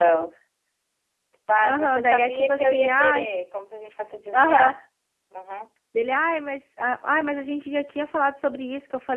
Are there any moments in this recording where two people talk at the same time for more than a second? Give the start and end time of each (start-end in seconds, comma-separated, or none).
1.6-3.3